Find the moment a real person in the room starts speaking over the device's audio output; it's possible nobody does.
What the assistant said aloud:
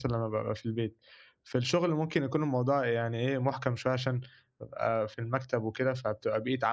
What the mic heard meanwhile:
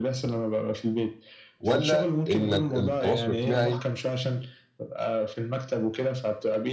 2 s

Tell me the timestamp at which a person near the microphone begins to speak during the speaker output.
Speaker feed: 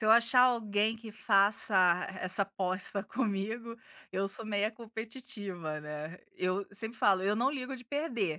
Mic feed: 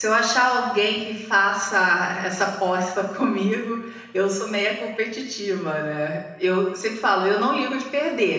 none

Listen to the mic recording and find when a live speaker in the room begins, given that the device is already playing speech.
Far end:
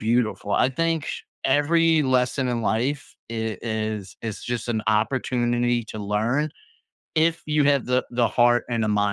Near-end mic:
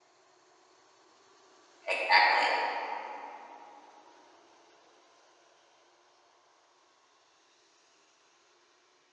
2 s

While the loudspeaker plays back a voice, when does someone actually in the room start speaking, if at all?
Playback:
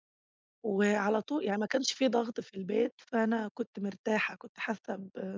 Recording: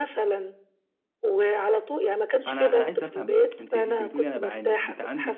2 s

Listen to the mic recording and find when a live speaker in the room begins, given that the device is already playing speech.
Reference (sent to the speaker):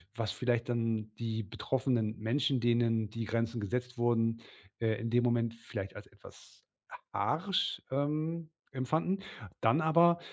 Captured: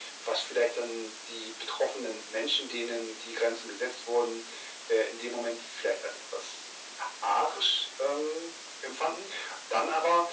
none

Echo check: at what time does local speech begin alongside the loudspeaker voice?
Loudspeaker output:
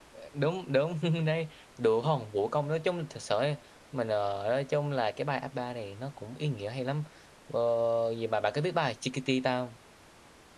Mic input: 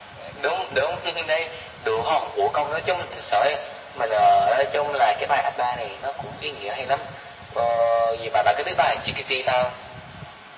none

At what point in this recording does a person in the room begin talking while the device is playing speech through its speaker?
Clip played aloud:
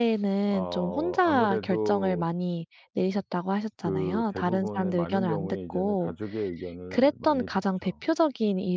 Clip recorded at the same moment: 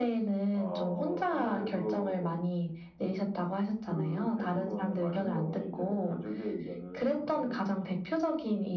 none

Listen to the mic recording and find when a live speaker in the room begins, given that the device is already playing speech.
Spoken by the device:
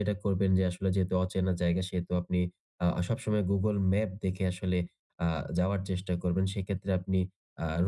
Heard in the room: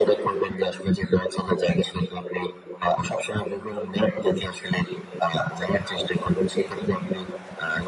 none

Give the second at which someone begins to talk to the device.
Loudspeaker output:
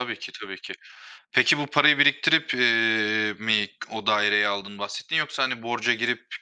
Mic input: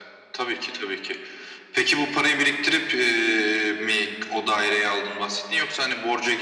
none

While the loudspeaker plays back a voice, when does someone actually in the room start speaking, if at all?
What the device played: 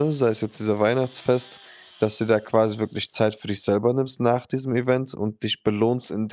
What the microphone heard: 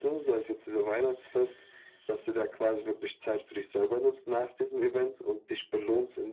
none

